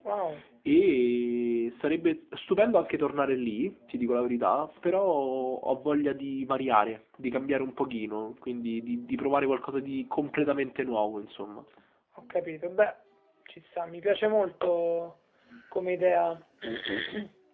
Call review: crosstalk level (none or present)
none